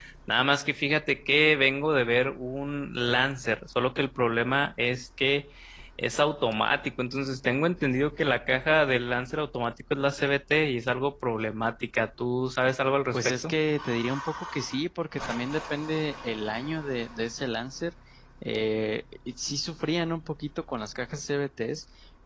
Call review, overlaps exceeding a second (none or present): none